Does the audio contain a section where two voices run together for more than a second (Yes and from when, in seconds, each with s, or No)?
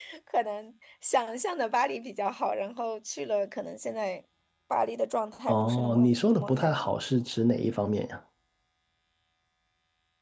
Yes, from 5.5 s